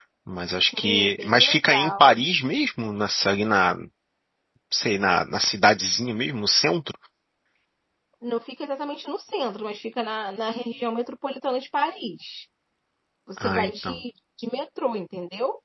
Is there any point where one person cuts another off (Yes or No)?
Yes